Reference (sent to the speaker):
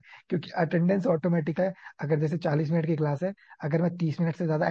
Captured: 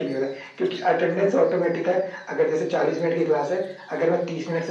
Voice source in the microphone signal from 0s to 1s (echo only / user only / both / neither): echo only